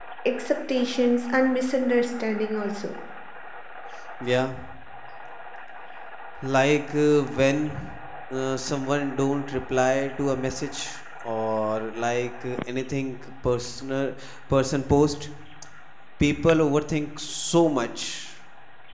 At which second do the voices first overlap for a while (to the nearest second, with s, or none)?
none